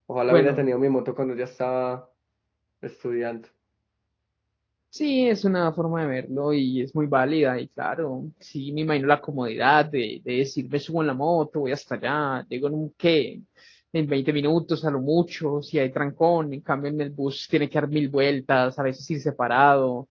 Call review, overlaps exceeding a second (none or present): none